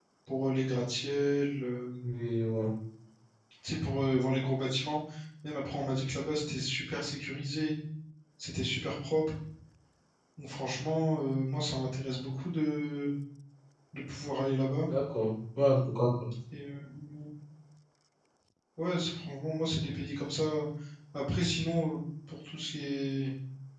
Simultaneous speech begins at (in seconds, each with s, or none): none